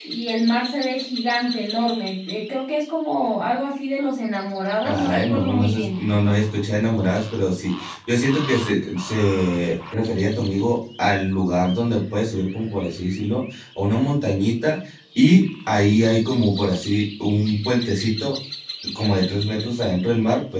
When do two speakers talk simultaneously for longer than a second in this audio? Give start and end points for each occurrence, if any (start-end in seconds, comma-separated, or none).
4.8-6.1